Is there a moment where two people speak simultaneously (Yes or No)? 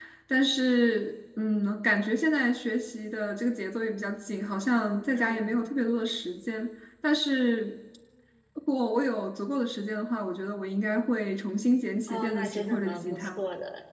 Yes